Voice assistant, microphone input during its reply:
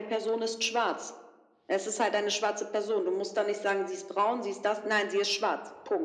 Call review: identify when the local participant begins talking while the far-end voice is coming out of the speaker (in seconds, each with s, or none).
none